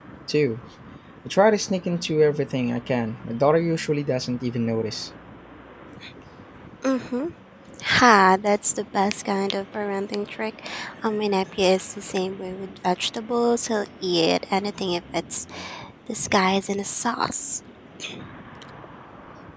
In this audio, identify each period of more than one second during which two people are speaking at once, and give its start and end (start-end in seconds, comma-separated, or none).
none